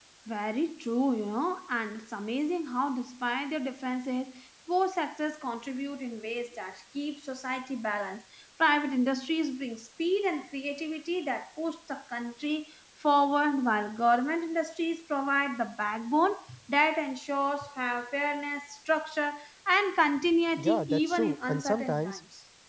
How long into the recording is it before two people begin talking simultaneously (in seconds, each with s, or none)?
20.6 s